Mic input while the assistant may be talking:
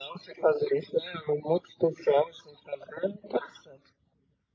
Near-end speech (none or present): none